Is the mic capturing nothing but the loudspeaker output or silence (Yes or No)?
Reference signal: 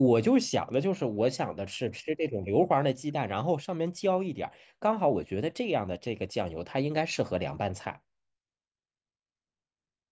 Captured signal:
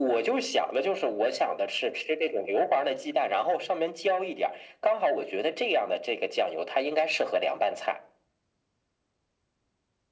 Yes